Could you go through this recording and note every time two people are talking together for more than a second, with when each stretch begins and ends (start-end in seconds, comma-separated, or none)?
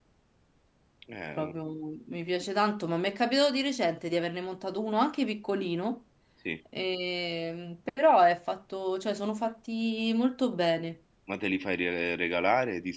none